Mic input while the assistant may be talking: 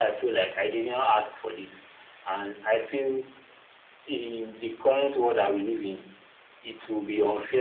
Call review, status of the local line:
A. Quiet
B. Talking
A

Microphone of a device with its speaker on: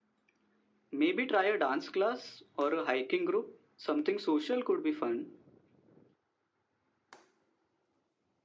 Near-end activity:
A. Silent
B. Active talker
A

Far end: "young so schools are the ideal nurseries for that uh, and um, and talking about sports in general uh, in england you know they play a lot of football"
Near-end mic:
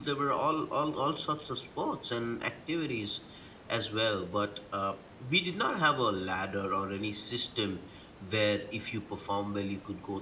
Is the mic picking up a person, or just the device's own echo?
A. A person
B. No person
A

